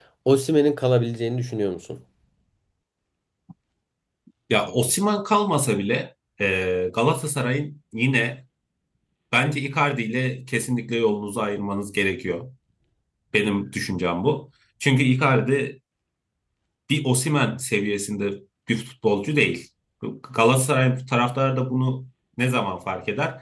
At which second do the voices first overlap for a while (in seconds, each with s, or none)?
none